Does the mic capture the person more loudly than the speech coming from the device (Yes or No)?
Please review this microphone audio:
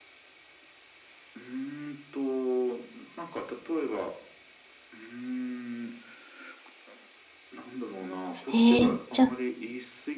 Yes